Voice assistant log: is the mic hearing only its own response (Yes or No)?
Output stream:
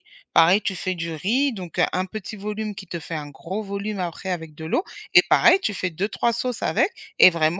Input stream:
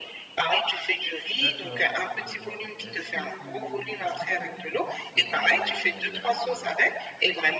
No